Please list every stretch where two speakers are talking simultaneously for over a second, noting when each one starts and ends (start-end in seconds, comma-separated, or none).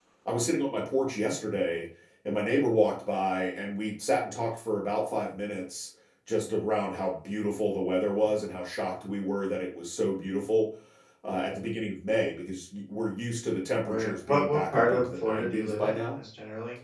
13.8-16.2